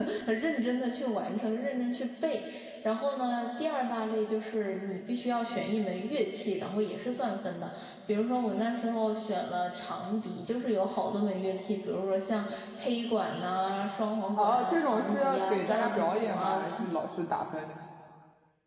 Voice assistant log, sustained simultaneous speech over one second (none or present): present